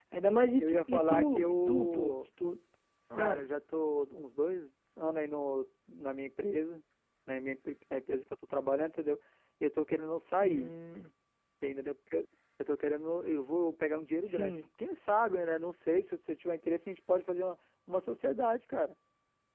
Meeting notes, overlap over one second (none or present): present